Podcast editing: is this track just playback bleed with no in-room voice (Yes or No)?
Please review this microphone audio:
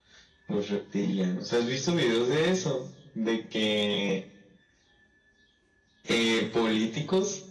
Yes